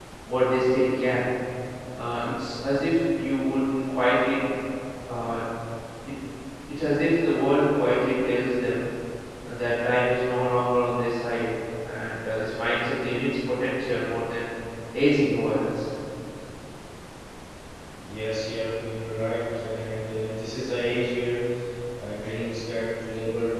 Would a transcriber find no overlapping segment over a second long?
Yes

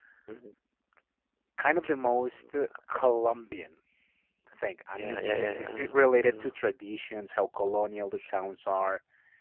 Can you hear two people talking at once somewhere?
Yes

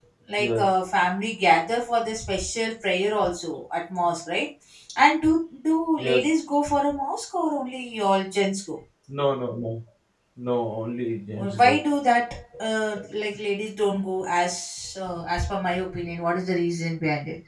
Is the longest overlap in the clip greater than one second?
No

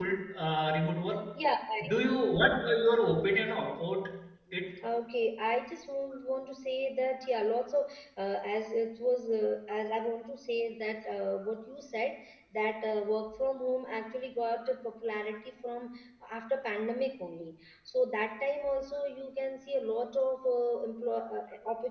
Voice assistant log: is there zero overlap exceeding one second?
Yes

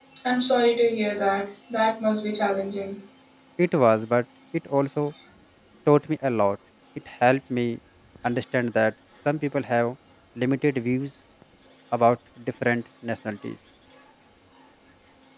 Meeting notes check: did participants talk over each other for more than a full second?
No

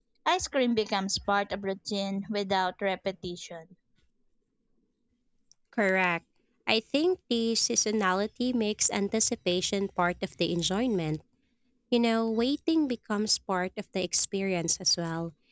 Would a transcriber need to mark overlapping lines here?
No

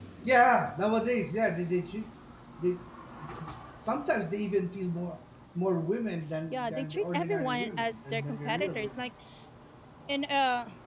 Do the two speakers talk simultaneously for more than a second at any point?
Yes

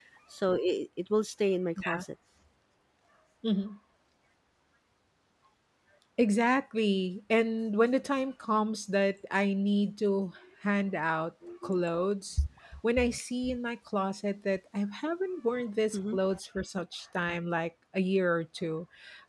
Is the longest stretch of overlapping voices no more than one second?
Yes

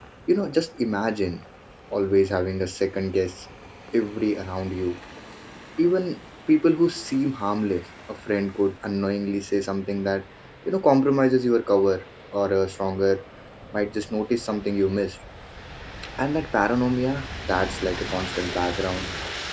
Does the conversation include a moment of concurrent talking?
No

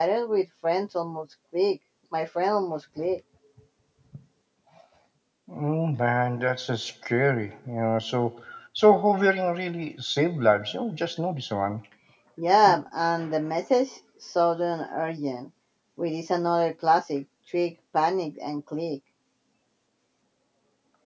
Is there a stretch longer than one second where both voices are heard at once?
No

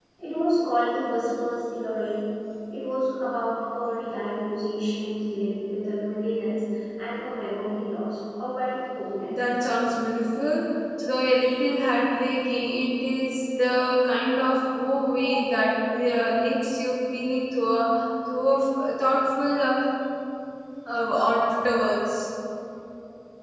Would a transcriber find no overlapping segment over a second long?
Yes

